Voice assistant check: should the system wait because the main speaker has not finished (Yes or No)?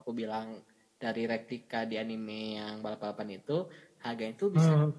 Yes